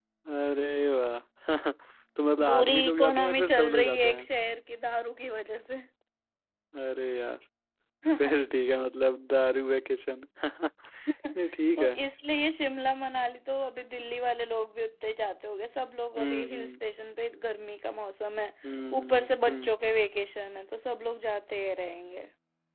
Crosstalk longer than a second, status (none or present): present